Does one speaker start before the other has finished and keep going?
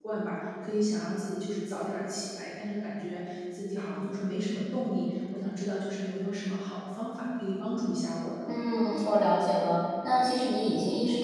No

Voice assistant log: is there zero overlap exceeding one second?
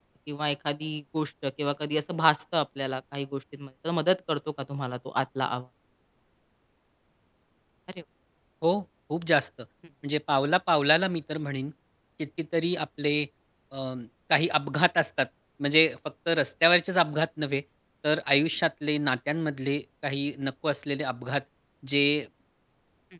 Yes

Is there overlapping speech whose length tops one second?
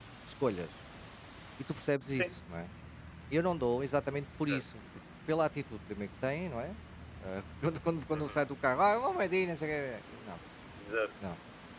No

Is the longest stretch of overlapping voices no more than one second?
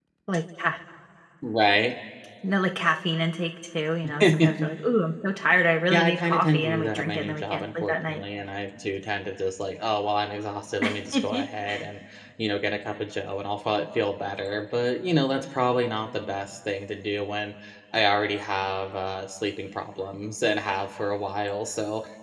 No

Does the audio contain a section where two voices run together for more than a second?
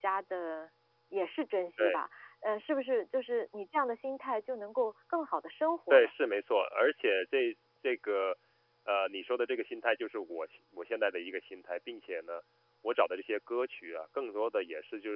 No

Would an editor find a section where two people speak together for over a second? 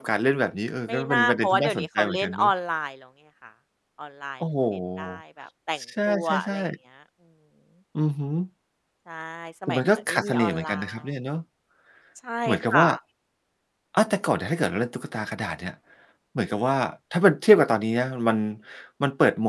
Yes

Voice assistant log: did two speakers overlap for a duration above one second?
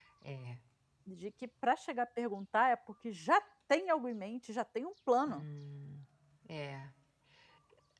No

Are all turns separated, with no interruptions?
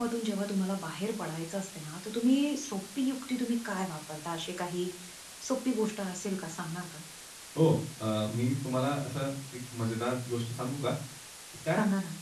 Yes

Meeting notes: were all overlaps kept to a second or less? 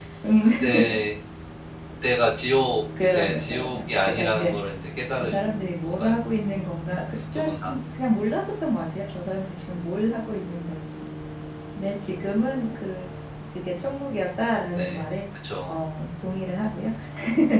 No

